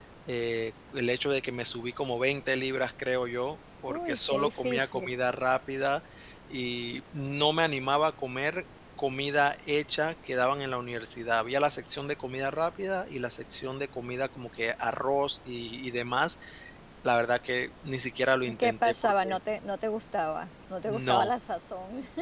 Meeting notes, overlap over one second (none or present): present